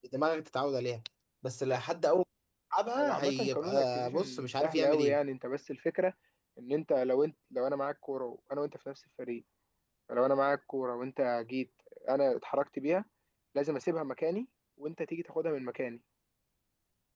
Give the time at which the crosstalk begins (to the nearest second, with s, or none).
3 s